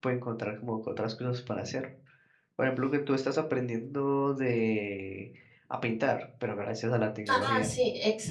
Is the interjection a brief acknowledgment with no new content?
No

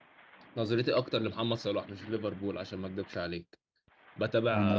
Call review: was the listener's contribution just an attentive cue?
Yes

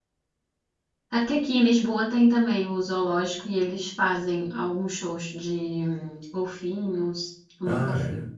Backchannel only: No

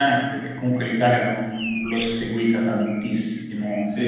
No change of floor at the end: No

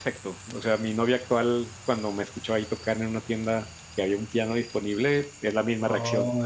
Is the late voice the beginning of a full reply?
Yes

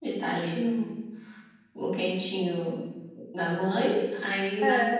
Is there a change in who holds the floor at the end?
No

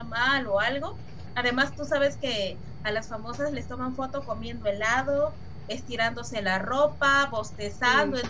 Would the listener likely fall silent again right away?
Yes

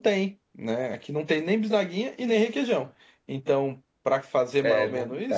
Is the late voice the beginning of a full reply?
Yes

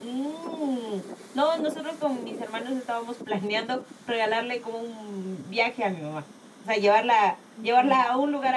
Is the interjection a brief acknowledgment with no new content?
Yes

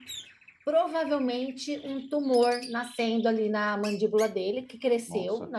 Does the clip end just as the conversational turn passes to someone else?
No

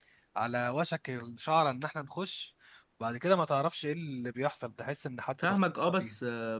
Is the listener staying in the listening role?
No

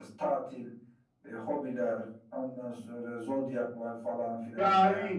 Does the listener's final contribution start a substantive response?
Yes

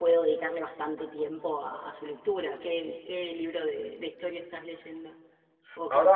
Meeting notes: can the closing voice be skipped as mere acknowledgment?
No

